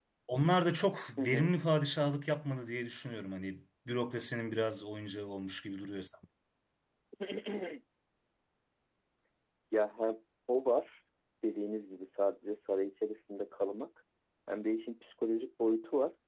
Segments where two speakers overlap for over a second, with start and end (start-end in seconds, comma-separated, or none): none